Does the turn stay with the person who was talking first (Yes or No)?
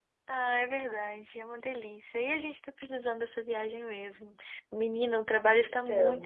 Yes